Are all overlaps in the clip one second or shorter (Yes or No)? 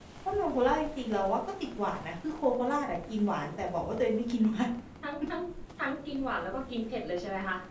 Yes